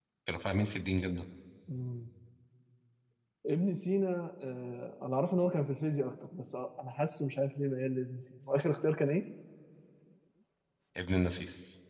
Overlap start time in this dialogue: none

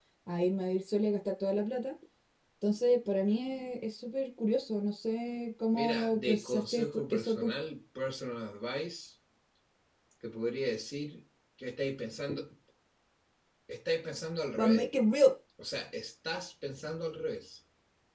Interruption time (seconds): 6 s

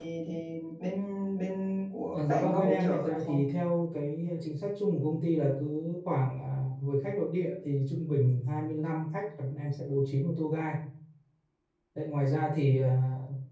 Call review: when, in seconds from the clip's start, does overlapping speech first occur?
2 s

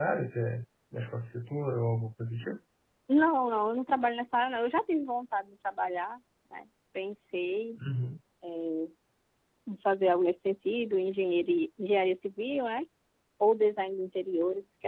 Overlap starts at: none

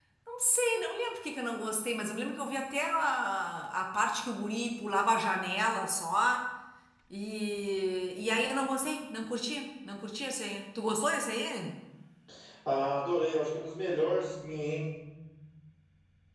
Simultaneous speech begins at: none

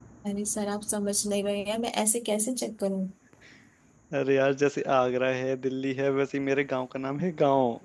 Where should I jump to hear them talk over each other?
none

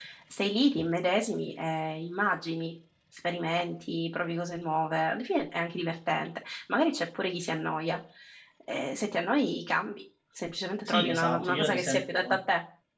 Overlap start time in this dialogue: 11 s

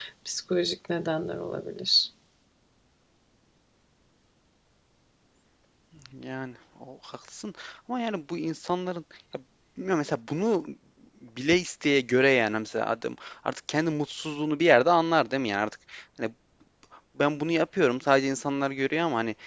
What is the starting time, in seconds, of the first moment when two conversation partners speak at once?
none

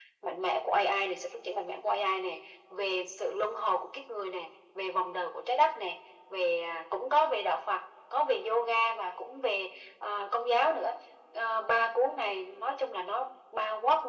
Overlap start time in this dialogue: none

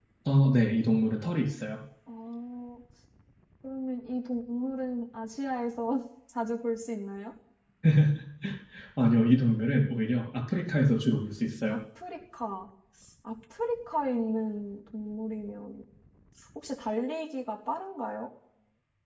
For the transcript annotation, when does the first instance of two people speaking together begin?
none

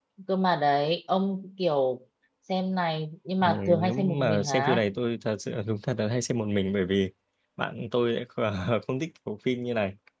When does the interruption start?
3 s

